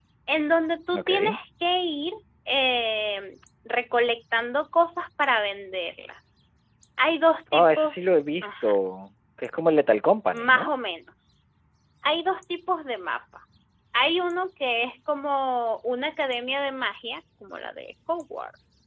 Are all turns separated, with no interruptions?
No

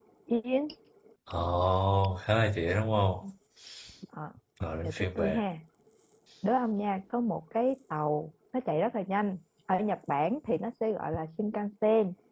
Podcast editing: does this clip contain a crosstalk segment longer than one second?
No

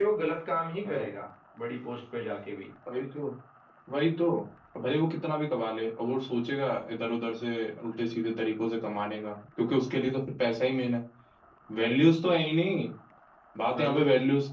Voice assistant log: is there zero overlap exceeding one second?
Yes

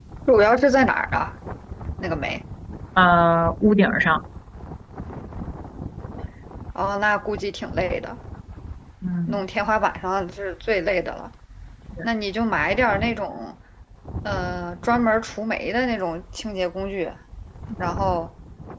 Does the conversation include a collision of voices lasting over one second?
No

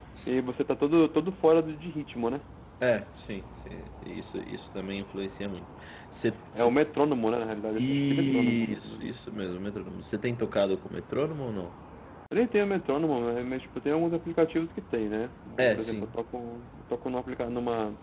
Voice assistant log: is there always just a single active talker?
No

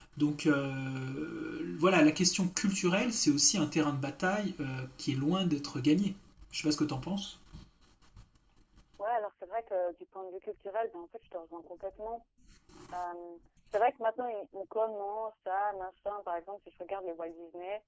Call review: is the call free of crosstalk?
Yes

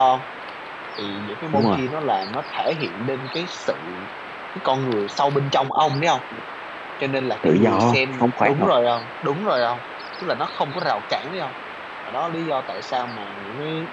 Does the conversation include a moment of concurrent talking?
Yes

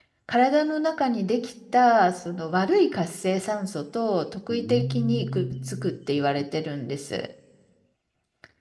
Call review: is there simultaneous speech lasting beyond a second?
Yes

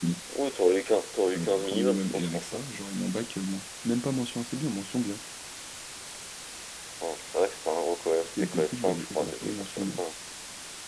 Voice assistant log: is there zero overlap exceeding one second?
No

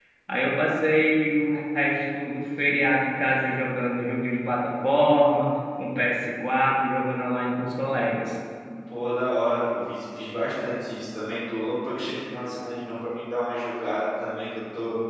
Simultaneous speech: No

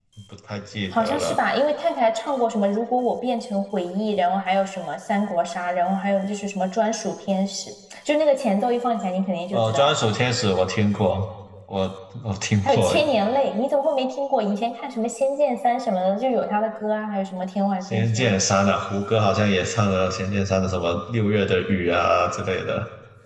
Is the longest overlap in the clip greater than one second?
No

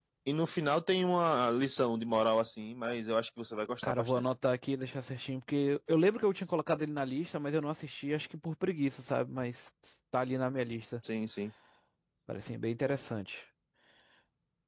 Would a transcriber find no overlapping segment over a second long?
Yes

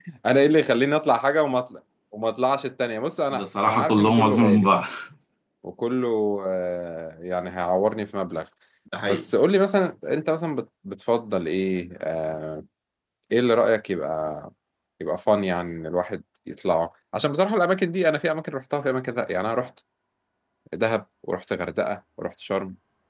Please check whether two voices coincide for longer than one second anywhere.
Yes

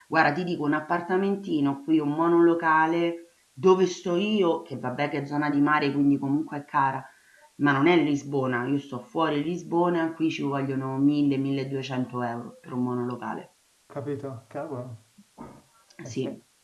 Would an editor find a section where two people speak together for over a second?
No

